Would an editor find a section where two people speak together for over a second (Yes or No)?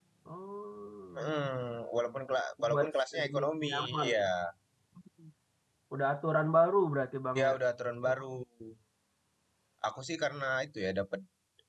Yes